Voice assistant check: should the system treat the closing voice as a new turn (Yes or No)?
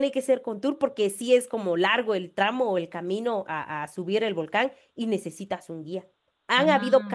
No